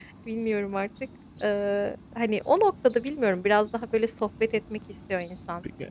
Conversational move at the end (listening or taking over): taking over